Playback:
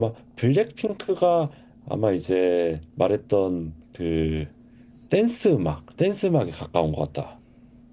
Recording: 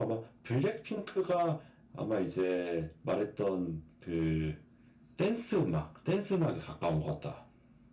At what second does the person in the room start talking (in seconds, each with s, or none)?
none